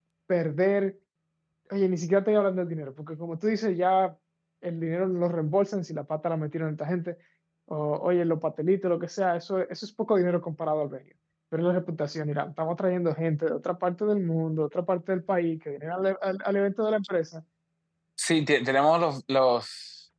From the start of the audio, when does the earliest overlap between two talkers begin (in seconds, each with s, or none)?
none